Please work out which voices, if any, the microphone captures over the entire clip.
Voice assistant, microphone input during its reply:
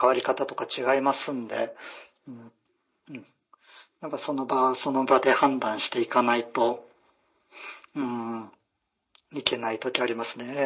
echo only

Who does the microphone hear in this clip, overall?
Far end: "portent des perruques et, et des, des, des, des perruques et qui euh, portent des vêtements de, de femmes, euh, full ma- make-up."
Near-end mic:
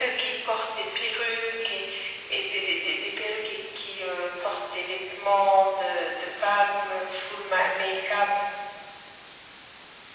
echo only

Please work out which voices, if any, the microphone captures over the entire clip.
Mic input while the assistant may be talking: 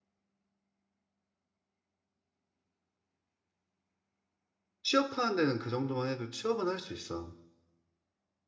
user only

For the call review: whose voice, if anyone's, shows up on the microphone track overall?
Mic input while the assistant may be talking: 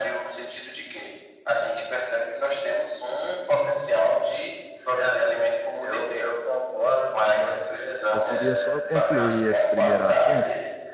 both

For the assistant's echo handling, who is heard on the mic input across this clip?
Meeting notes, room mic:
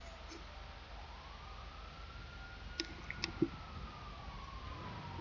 neither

